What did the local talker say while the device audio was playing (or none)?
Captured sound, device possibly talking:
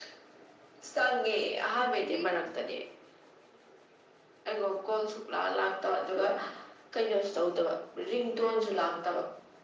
ꯉꯁꯤꯒꯤ